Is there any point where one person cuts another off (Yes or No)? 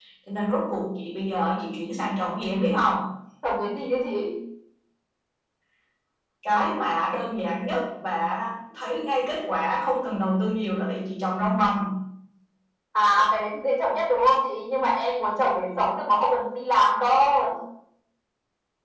No